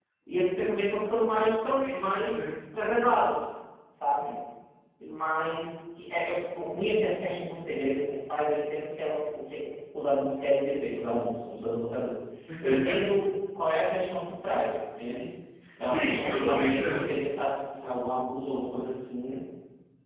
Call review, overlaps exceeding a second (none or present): present